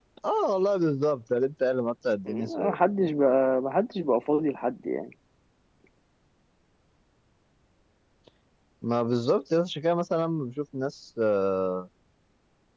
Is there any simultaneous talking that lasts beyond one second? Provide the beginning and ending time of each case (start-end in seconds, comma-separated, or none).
none